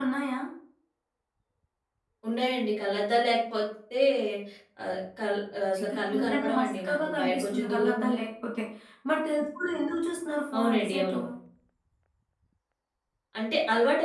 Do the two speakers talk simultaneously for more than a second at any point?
Yes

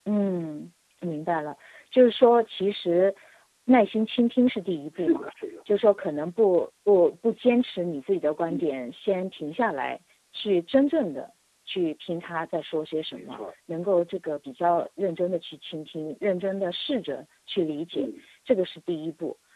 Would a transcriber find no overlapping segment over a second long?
Yes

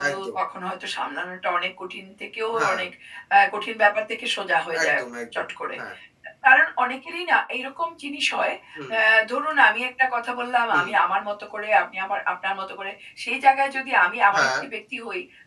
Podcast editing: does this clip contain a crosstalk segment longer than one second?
No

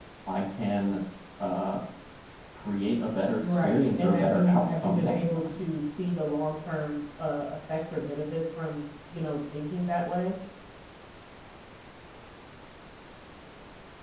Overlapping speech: Yes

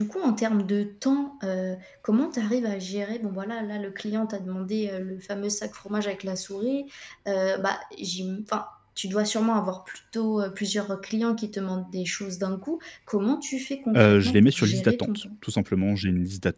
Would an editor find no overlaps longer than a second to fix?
No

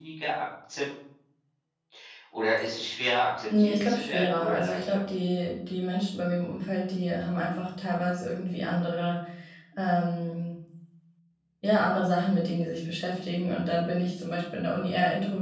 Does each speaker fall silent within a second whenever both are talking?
No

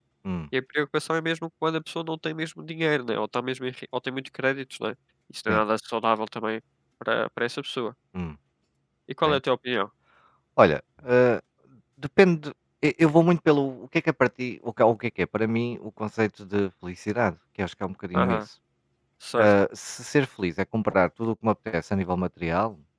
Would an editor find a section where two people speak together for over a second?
No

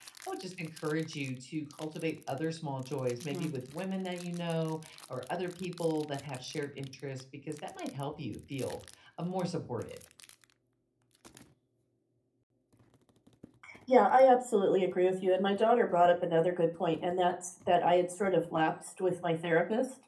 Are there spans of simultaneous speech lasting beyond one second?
No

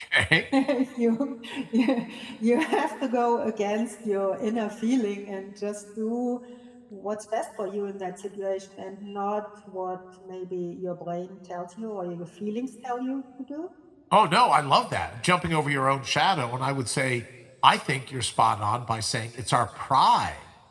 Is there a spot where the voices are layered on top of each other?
No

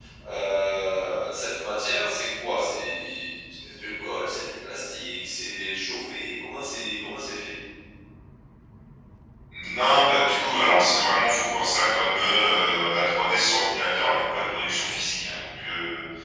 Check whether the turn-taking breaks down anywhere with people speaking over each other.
No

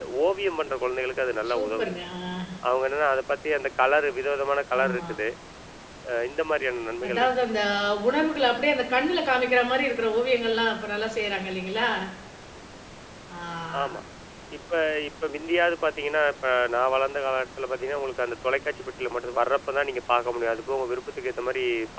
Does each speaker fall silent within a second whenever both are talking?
Yes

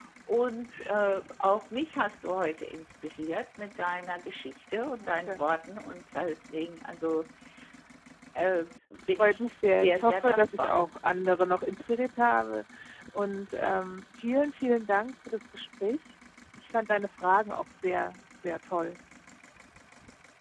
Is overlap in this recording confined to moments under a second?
No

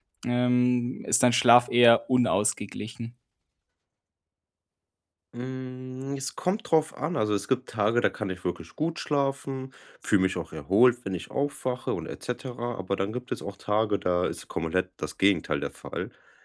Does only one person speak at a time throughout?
Yes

